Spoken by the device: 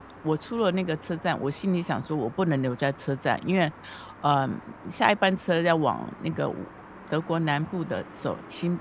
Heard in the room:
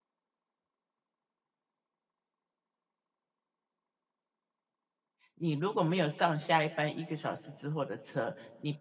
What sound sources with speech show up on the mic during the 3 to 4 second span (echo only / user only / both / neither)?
neither